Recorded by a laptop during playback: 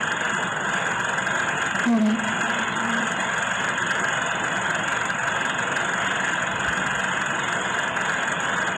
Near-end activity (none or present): present